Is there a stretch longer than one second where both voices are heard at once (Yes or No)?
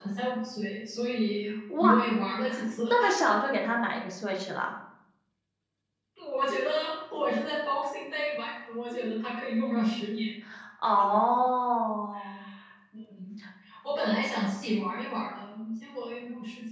No